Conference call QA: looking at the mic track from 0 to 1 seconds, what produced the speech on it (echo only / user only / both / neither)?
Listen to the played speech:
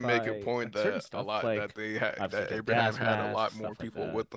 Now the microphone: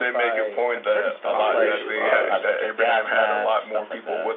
echo only